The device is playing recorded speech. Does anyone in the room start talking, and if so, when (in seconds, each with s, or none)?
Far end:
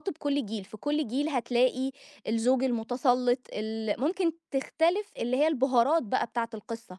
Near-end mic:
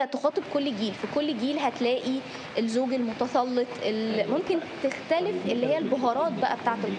4.1 s